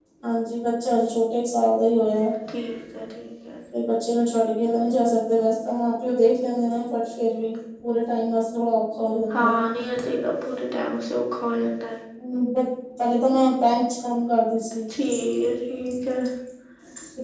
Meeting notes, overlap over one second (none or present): none